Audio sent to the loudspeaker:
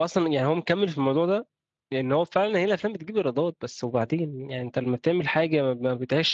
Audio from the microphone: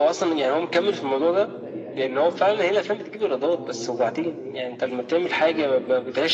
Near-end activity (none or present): present